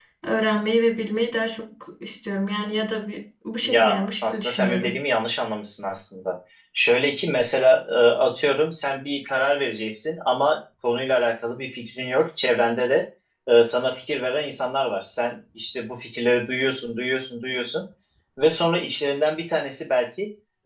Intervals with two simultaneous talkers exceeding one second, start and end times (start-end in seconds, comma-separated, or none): 3.6-5.0